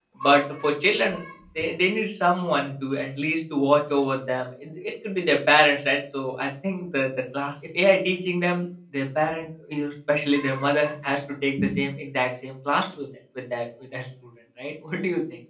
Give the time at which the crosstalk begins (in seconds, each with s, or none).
none